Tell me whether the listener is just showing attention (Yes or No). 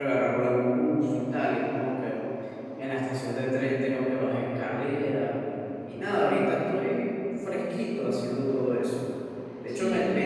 Yes